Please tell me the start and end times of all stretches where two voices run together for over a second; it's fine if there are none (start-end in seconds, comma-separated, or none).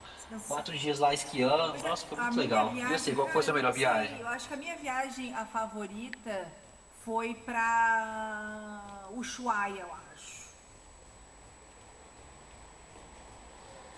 1.7-4.2